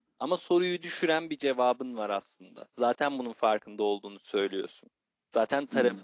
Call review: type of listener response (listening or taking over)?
listening